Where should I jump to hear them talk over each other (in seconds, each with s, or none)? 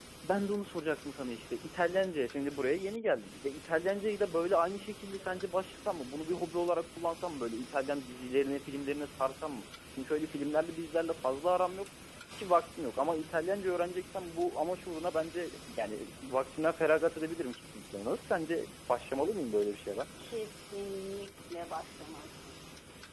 none